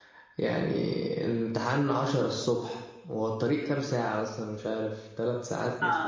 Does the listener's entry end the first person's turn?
Yes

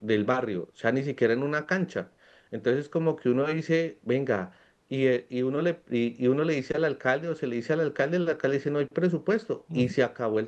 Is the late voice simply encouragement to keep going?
Yes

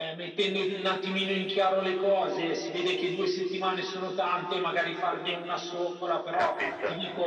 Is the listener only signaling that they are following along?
Yes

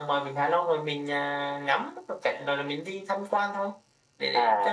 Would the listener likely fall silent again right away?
No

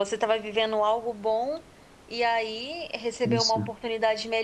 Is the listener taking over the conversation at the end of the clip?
No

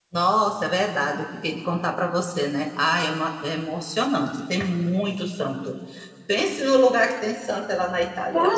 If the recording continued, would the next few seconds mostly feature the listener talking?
Yes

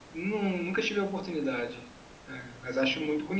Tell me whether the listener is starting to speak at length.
No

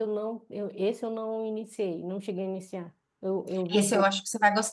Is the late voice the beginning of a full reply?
Yes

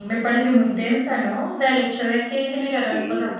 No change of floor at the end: Yes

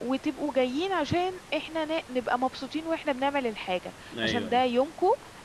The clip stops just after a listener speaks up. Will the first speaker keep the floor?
Yes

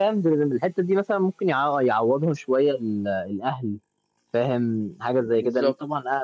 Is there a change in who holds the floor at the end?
No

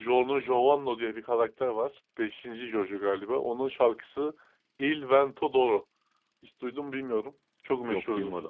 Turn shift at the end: No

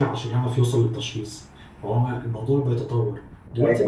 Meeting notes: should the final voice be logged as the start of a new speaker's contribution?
No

